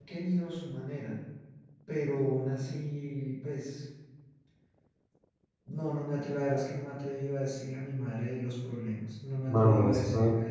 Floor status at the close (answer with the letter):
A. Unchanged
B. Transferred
B